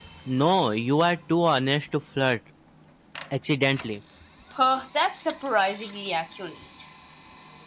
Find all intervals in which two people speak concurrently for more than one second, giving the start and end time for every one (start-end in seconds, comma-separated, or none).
none